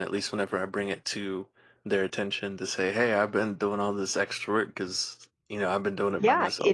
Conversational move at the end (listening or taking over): taking over